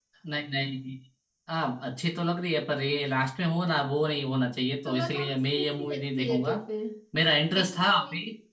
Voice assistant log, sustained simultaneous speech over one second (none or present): present